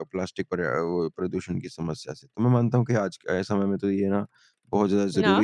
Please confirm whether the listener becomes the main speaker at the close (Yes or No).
No